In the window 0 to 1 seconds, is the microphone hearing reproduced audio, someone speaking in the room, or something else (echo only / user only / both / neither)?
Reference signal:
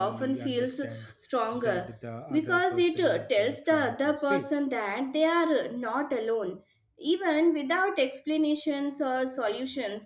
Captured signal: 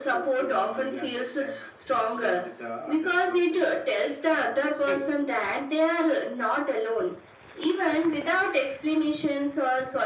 echo only